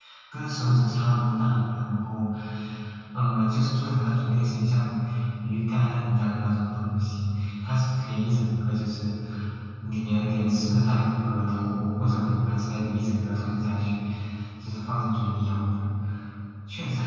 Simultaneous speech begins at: none

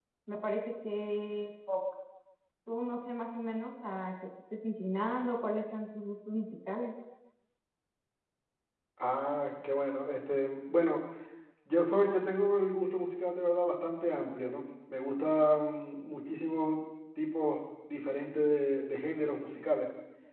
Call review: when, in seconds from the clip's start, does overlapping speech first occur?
none

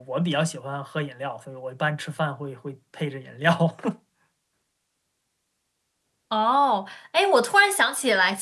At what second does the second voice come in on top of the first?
none

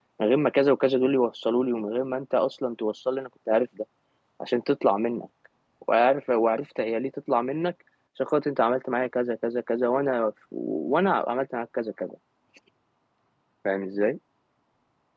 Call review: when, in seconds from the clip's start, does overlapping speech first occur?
none

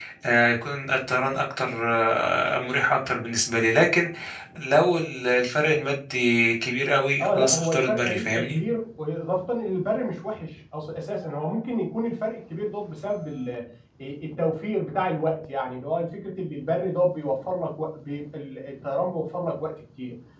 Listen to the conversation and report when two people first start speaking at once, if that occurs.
7.2 s

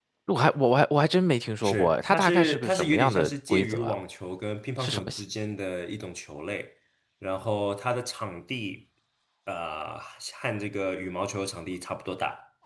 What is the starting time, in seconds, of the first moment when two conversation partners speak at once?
1.6 s

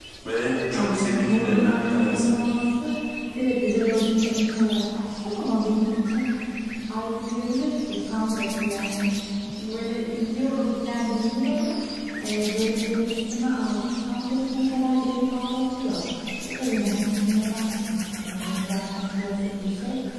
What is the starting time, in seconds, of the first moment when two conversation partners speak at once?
0.7 s

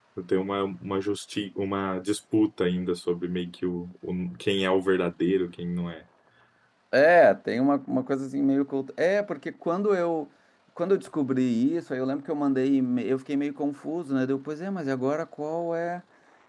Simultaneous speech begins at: none

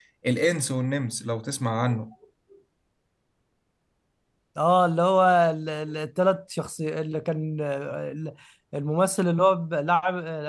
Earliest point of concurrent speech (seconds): none

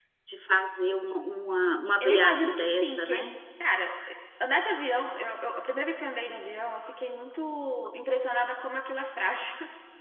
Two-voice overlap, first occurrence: 2.0 s

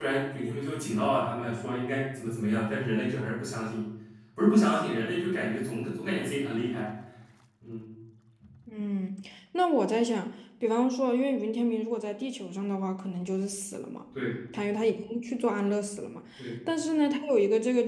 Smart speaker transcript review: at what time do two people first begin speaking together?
none

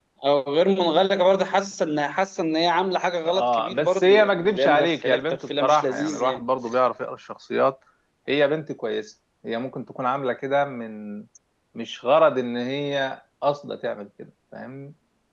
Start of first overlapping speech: 3.2 s

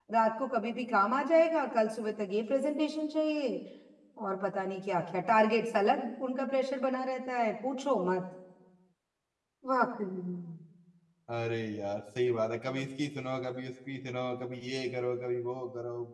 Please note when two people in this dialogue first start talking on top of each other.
none

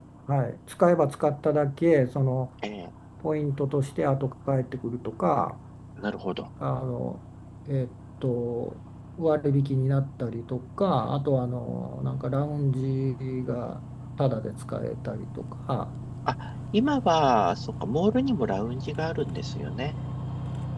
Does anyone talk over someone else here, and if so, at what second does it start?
none

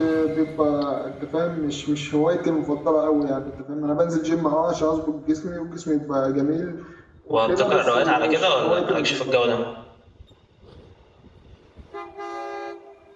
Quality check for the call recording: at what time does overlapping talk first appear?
7.3 s

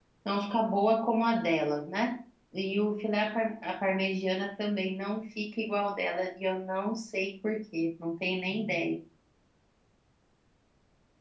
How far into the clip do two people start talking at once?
none

